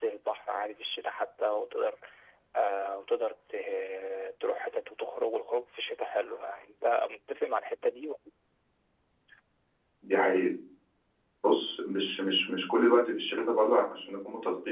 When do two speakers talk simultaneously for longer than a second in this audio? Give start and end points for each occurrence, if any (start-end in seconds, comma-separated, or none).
none